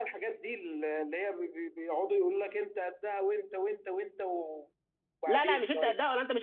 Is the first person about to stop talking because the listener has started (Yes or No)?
Yes